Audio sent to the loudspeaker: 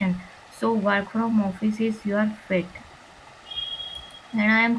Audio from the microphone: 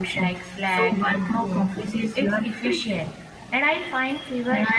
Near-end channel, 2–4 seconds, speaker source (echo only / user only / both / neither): both